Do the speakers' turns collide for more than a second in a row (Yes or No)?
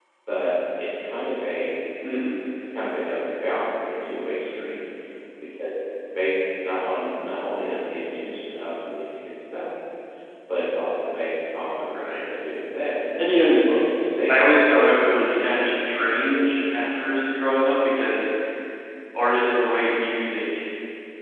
Yes